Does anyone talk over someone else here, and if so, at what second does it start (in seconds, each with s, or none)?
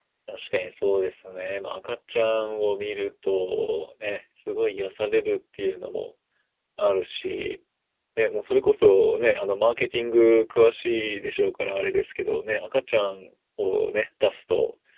none